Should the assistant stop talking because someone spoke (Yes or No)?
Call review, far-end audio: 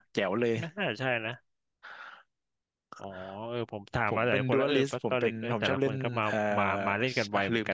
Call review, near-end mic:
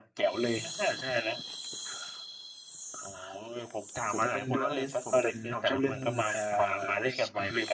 No